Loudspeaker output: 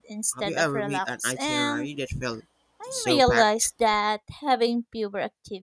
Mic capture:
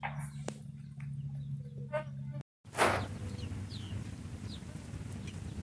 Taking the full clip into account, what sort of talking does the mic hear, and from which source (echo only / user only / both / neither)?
neither